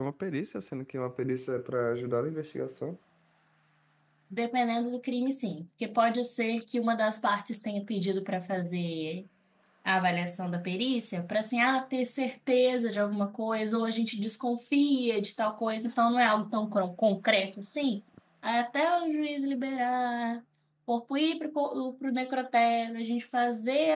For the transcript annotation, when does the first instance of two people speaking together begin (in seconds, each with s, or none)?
none